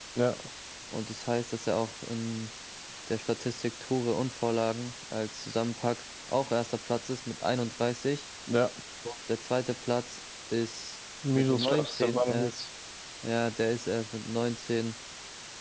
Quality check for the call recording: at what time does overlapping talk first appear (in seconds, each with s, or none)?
11.2 s